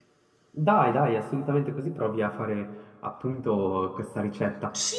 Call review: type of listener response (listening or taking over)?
taking over